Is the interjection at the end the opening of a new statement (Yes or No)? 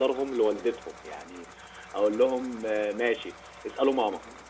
No